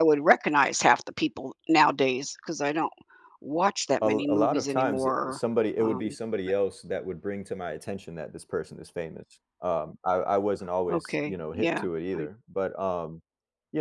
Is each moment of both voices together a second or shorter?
No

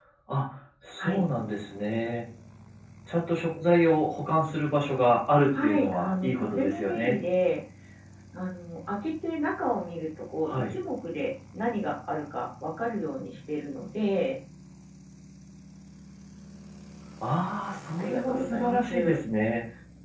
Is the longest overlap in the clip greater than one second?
Yes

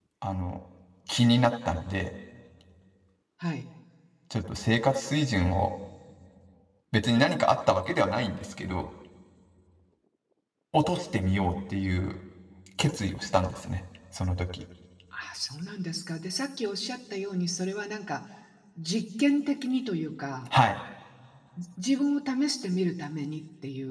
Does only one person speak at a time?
Yes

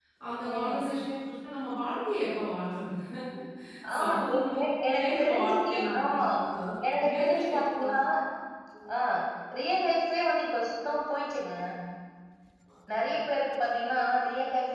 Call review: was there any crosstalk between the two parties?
Yes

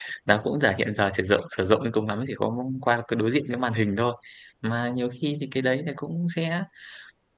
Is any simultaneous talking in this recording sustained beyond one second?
No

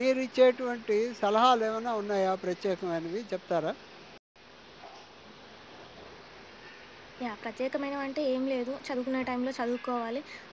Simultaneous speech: No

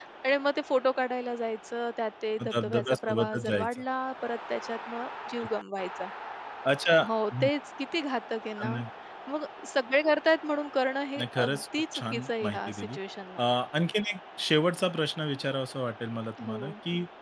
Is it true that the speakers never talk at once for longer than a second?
No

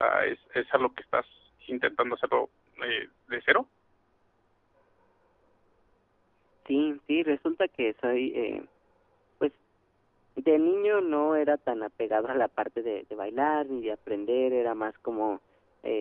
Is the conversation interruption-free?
Yes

